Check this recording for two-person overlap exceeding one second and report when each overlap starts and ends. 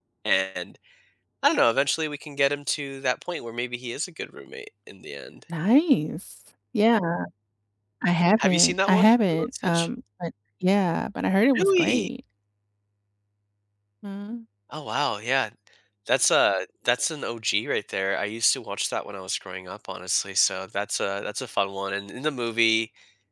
8.4-9.9

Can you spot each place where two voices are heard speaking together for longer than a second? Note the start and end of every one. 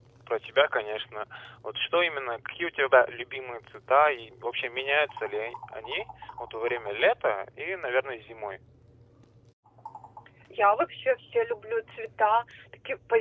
none

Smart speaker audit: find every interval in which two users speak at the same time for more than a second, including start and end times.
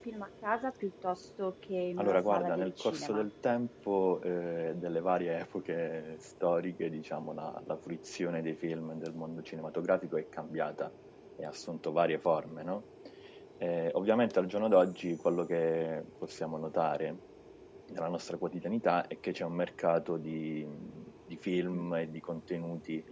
2.0-3.3

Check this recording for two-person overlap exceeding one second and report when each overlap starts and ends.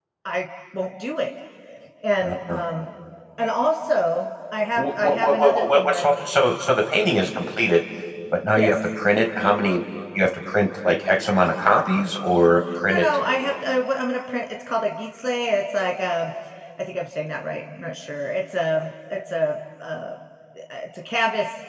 4.8-6.5

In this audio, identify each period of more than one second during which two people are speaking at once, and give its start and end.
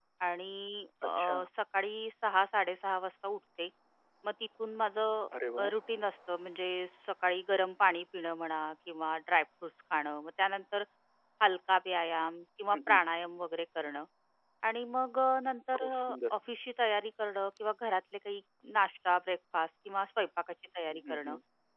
none

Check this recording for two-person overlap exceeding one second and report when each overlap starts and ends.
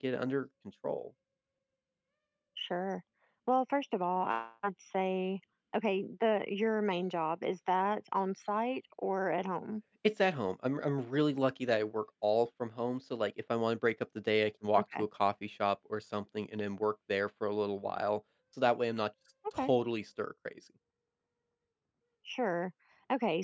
none

